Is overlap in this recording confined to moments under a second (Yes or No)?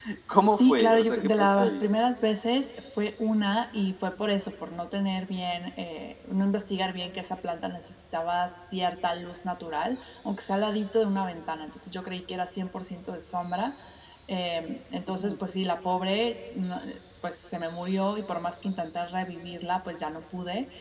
No